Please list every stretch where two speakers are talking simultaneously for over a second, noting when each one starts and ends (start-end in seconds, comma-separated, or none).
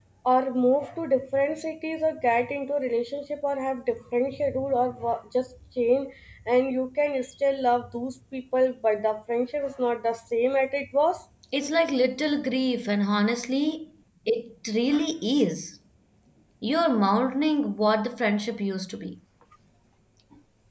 none